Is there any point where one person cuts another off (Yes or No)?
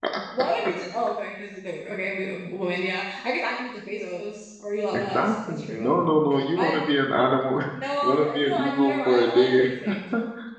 Yes